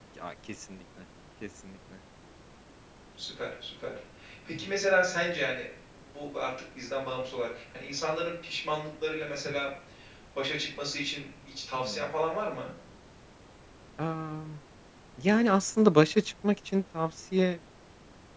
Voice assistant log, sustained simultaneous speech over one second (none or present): none